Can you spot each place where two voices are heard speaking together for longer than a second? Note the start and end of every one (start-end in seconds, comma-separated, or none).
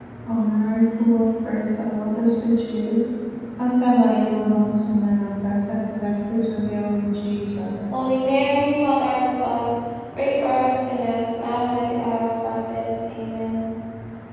none